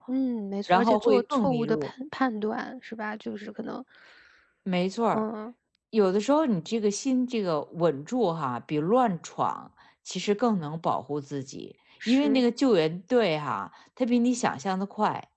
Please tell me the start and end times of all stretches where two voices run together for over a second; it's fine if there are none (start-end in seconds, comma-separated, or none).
0.7-1.9